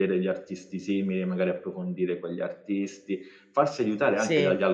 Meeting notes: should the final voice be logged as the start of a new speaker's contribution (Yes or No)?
No